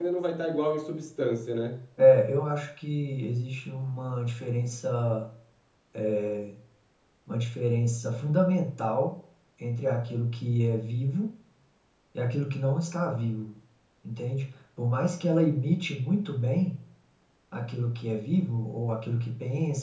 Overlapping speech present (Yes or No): No